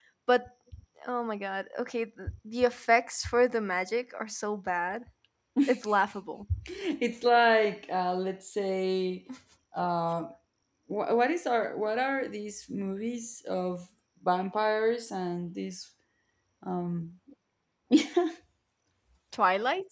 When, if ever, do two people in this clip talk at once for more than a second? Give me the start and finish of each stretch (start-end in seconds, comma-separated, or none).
none